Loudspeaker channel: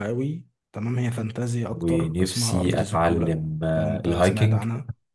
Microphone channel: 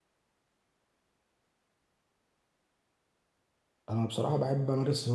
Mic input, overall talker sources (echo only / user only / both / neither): user only